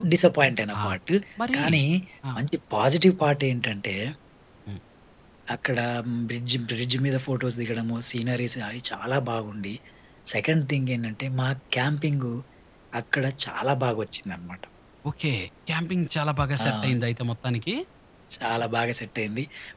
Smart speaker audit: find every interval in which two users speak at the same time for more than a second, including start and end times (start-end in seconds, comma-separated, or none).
none